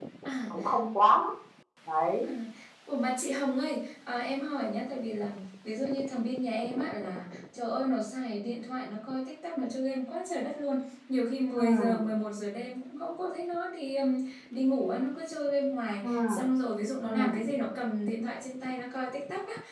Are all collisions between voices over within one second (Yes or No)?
Yes